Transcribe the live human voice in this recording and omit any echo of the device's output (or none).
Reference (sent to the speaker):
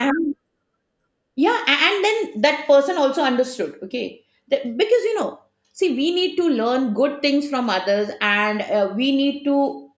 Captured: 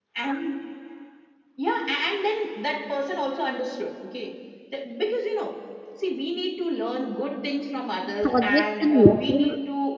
Projects and work will